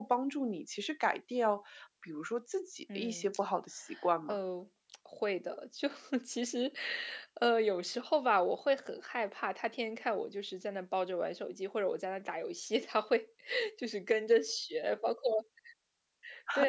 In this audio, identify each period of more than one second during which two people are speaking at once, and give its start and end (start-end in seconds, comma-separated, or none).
none